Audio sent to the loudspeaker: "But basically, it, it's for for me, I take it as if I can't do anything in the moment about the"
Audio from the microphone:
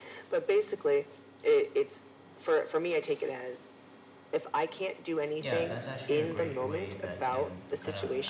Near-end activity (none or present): present